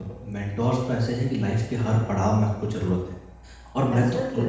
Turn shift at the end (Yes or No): No